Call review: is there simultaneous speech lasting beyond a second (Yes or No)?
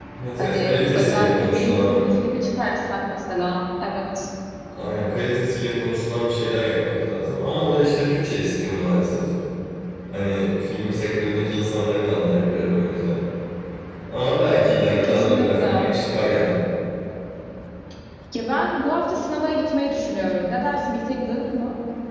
Yes